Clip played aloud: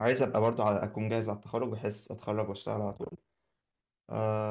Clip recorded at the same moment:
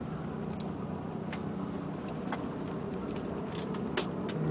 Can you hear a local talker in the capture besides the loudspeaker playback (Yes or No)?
No